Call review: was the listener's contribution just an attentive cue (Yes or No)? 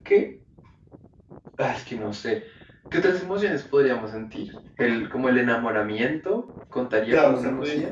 No